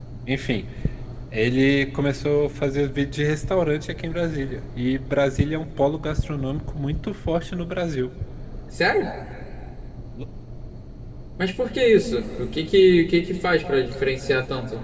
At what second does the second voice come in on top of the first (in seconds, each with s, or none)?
none